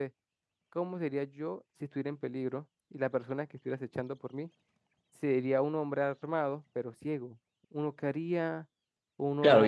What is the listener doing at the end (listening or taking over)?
taking over